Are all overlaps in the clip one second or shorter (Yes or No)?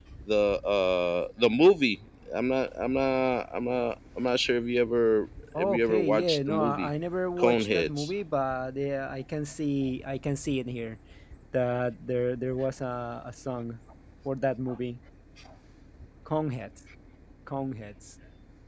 No